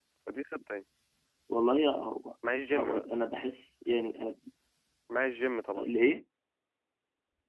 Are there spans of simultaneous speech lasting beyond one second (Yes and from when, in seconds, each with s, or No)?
No